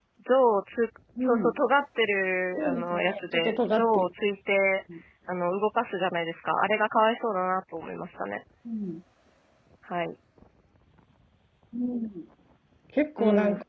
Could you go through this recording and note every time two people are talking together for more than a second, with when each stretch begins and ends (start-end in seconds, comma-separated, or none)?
2.6-4.1